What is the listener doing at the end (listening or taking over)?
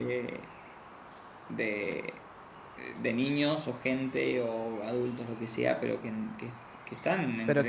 taking over